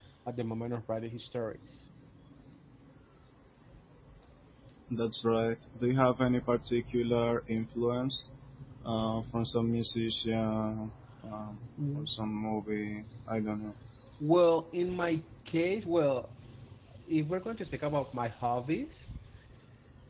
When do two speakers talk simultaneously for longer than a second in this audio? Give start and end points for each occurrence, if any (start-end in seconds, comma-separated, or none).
none